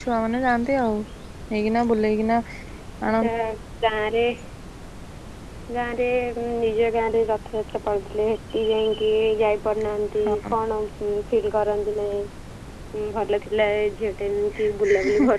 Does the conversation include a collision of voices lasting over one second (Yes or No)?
No